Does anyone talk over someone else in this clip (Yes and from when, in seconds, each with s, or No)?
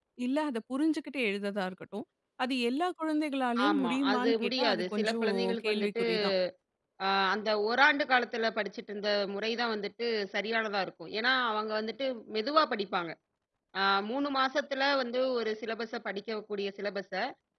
Yes, from 3.5 s